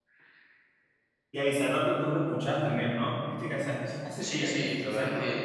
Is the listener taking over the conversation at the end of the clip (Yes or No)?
Yes